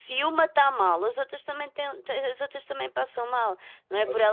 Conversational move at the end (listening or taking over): taking over